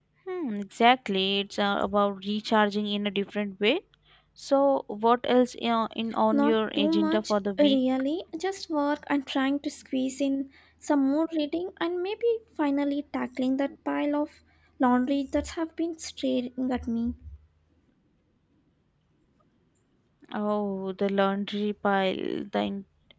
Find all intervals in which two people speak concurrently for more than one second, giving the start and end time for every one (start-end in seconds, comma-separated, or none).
6.3-7.8